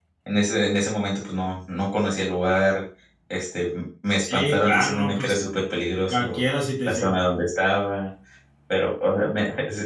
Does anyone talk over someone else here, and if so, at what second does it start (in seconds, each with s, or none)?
4.2 s